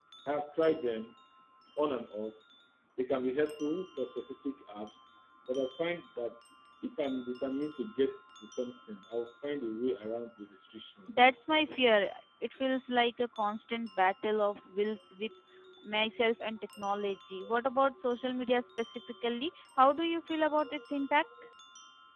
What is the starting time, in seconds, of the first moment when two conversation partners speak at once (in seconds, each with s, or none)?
none